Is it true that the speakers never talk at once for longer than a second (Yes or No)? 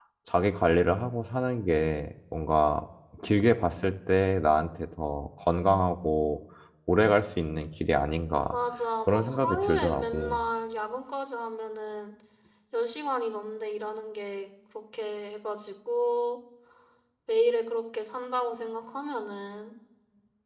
No